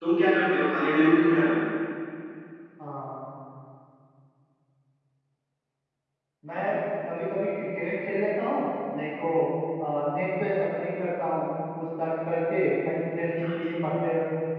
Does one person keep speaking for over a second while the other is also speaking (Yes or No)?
No